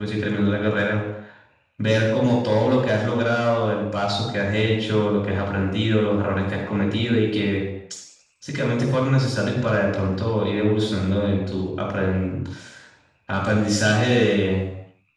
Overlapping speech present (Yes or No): No